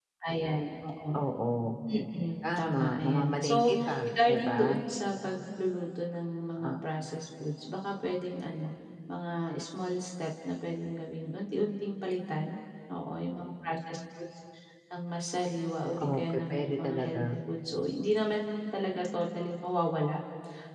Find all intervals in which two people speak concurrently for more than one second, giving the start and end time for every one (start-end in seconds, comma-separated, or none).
2.4-4.8, 16.0-17.2